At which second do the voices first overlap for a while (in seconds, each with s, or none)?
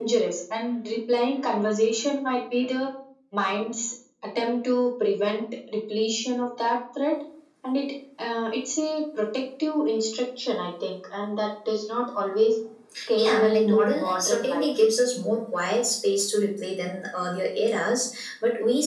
13.2 s